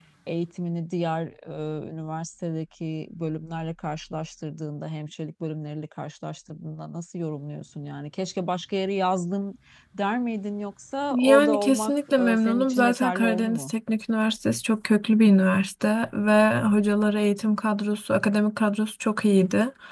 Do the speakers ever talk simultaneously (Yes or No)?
Yes